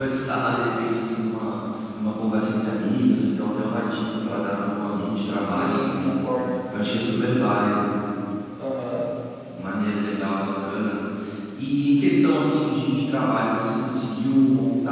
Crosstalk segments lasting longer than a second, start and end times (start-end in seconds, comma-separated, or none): 4.8-6.1